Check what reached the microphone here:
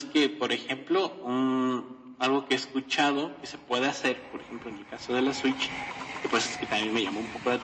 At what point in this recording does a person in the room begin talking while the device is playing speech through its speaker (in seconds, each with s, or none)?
none